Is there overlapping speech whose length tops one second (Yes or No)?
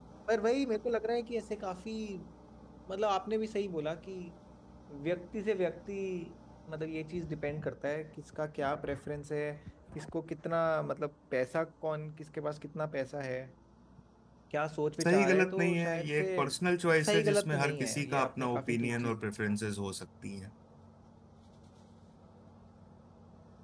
Yes